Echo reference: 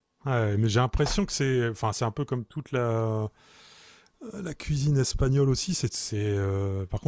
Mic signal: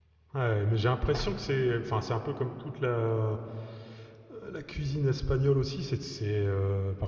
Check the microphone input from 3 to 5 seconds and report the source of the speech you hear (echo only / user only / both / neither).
echo only